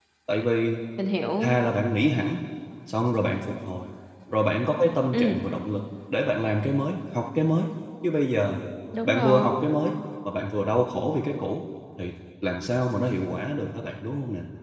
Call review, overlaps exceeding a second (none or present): none